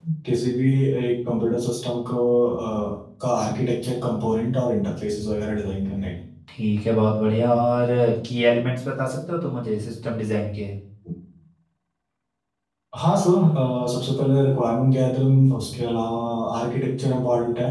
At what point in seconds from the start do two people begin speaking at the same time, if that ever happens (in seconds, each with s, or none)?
none